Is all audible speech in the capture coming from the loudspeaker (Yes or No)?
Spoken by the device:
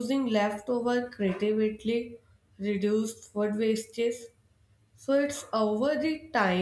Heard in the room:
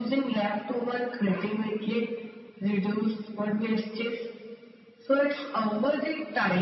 Yes